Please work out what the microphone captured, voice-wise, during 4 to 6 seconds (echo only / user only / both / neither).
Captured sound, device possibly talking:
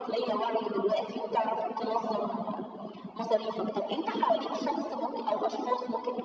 echo only